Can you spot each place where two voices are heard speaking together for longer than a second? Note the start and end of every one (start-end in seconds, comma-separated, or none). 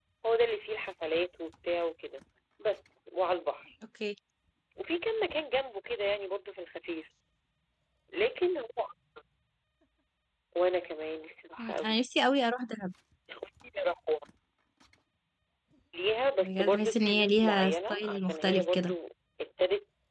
16.4-19.0